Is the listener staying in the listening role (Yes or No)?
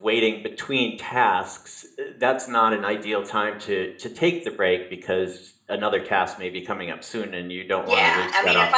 No